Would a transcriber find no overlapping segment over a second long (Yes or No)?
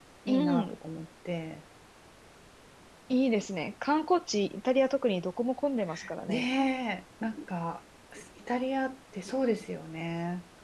Yes